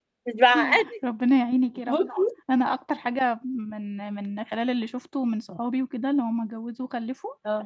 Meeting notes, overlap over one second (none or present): none